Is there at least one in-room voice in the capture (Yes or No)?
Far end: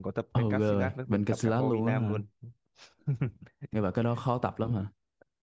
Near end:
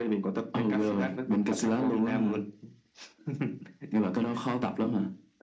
No